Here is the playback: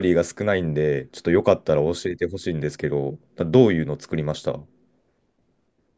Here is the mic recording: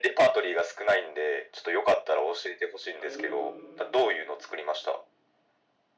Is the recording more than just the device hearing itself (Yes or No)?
Yes